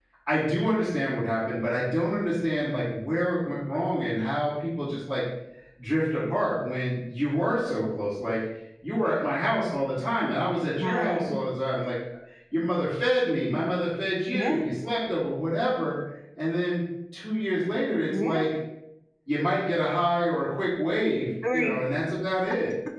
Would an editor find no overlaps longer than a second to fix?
Yes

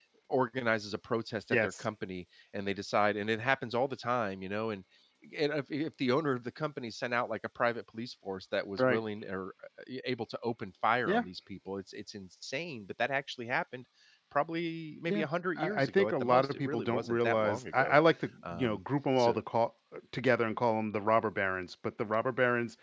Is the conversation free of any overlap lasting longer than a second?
No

